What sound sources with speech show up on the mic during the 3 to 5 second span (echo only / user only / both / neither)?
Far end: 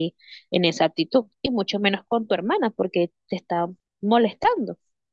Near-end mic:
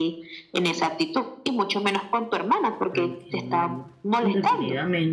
both